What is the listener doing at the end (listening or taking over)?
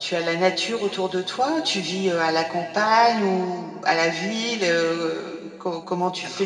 listening